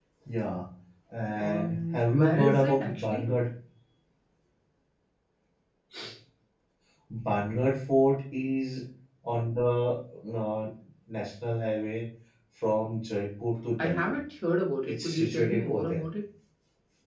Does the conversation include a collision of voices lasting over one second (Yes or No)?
Yes